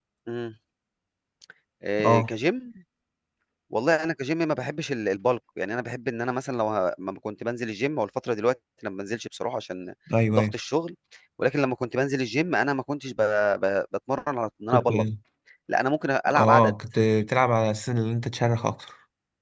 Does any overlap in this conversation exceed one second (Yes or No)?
No